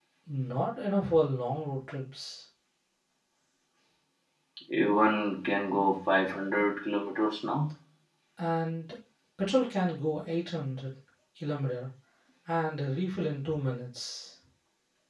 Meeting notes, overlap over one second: none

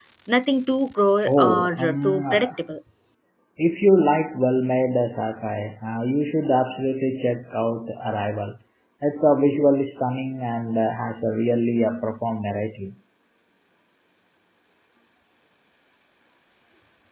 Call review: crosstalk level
present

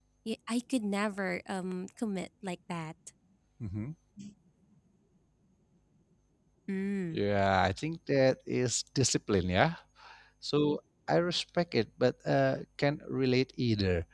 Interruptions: none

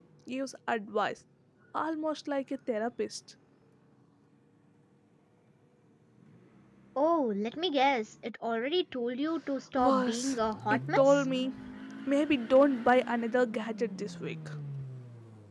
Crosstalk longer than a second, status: present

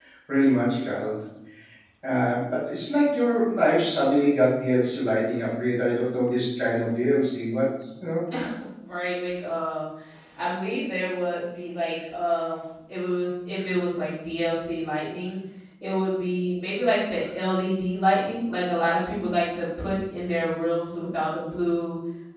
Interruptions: none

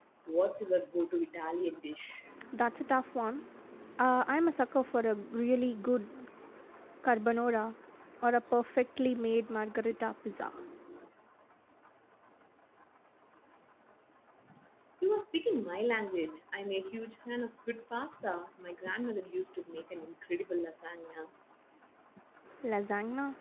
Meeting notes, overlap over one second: none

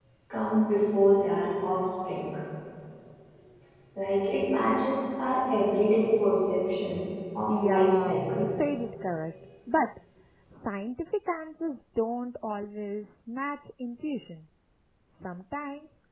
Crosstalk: present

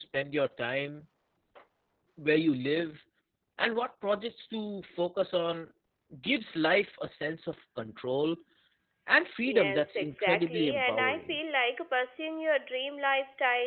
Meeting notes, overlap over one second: present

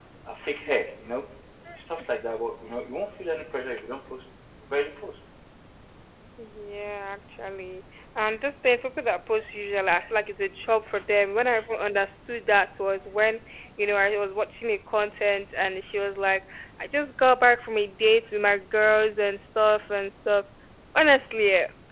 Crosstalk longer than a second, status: none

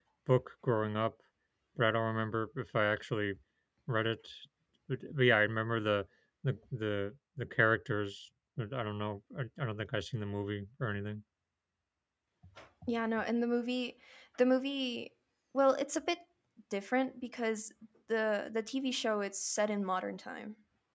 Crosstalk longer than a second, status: none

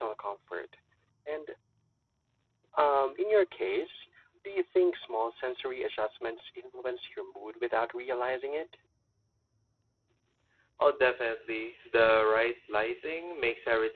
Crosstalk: none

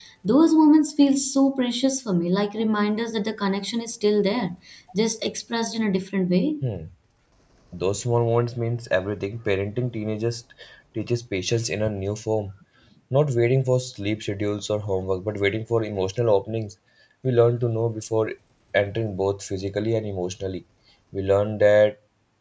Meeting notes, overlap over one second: none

